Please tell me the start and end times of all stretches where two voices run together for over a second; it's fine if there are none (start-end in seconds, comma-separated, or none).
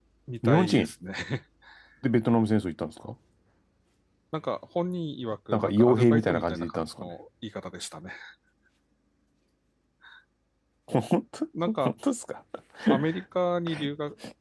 5.5-7.1